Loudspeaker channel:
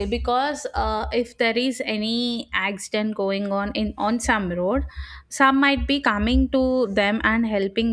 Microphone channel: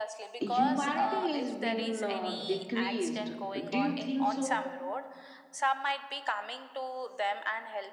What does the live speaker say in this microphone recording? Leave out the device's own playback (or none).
humanity is being uh, decreased. Do you think so?